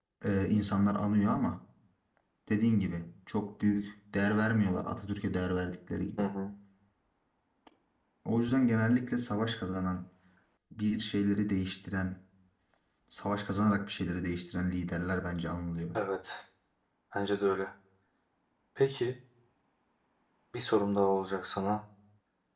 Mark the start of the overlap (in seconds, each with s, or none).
none